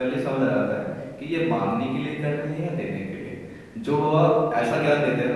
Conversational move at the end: listening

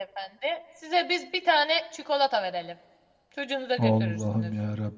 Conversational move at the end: taking over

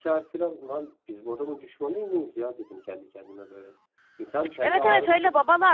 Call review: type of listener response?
taking over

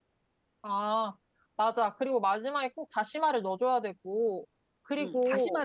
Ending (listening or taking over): taking over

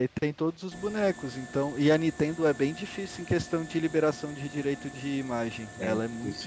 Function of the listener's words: taking over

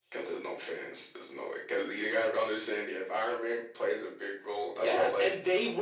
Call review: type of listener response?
taking over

